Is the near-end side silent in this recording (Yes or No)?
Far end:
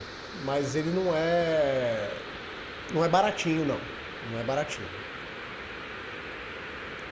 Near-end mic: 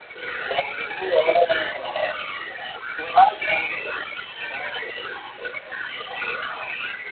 Yes